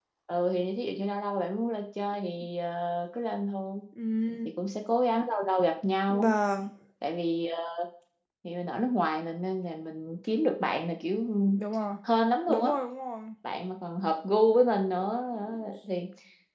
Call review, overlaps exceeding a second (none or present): none